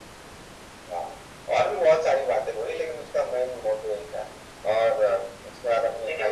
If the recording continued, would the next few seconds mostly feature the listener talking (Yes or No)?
Yes